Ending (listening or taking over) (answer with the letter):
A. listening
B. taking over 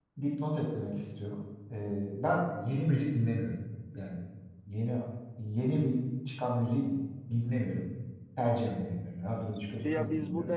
B